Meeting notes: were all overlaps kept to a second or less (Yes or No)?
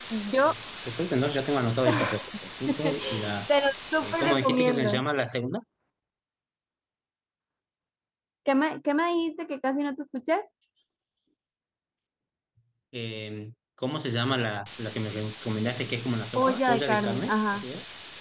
No